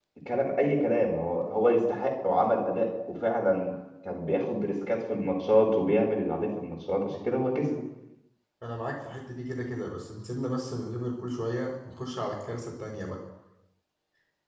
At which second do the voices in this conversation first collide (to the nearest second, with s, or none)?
none